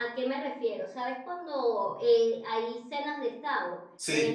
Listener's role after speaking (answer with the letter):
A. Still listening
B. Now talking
A